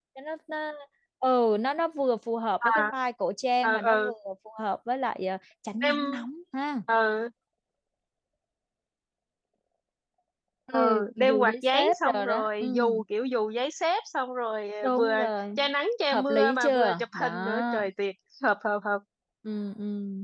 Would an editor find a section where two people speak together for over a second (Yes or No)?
Yes